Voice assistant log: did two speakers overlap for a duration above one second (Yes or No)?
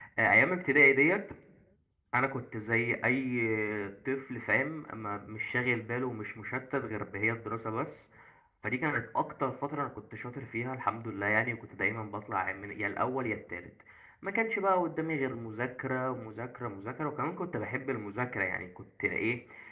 No